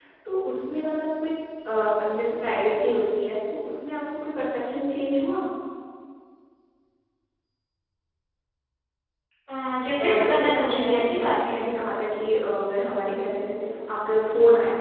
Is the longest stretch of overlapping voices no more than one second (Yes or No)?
No